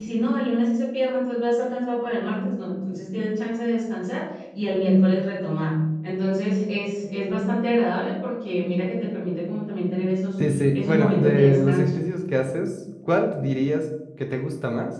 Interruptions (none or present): present